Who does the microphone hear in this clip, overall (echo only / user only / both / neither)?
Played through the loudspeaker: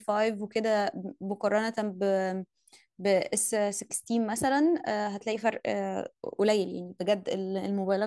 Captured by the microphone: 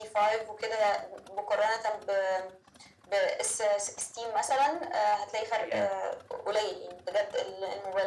both